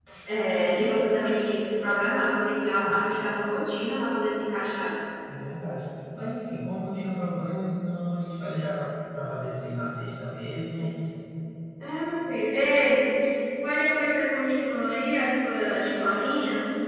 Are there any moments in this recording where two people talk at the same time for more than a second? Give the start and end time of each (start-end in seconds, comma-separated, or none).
none